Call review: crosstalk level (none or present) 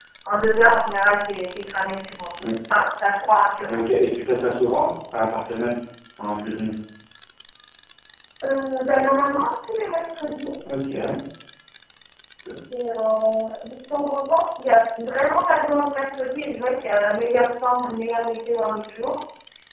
none